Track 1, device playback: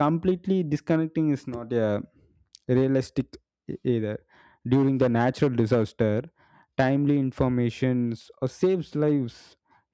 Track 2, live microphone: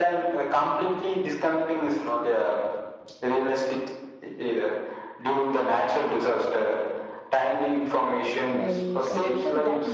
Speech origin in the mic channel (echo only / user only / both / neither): both